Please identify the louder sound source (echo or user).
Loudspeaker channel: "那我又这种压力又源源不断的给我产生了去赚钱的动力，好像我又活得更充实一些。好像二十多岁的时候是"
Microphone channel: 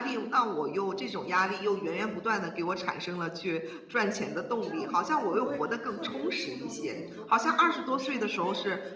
echo